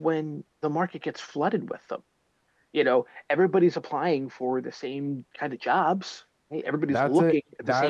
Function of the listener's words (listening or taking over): taking over